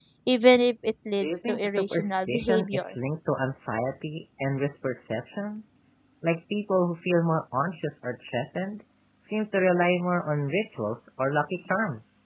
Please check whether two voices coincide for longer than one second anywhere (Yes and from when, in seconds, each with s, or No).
Yes, from 1.2 s